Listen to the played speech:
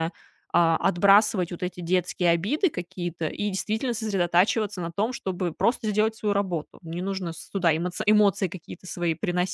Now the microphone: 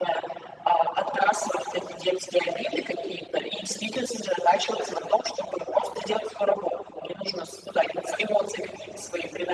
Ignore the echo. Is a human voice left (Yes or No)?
No